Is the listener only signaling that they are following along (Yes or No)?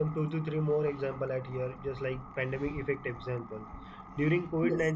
Yes